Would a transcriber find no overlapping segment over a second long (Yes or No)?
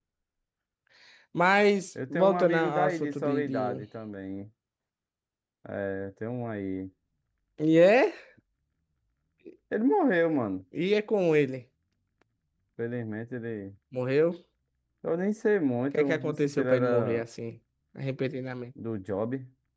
No